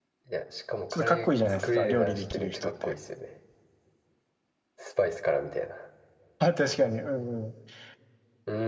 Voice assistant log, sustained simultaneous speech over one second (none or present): present